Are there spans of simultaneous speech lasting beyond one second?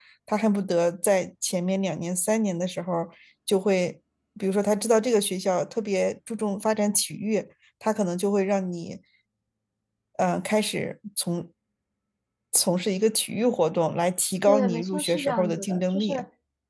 Yes, from 14.5 s

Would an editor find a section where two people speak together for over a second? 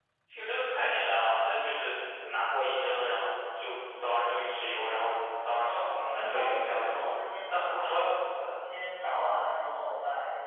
Yes, from 5.6 s

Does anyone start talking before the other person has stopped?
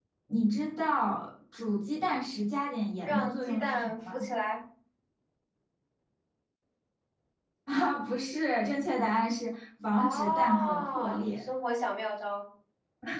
Yes, from 3.0 s

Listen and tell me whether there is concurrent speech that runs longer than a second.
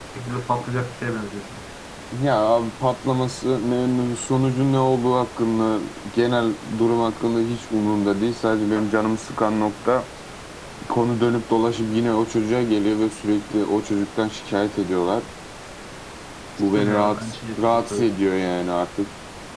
Yes, from 16.8 s

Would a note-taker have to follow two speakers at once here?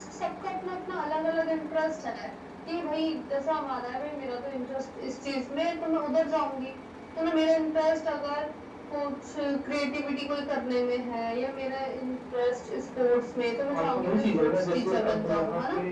Yes, from 13.7 s

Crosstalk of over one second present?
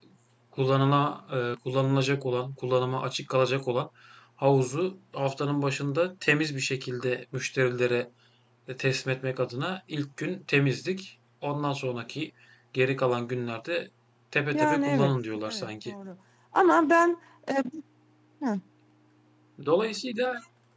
Yes, from 14.5 s

